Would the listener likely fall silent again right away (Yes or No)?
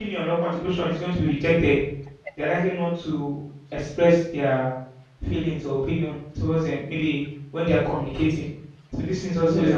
Yes